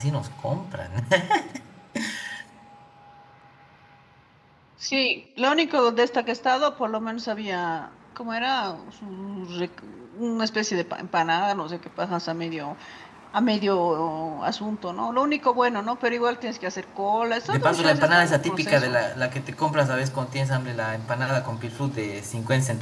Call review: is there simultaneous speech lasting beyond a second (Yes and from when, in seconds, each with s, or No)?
Yes, from 17.4 s